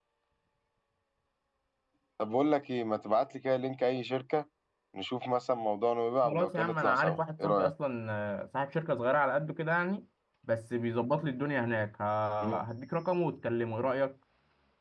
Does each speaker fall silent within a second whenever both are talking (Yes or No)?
No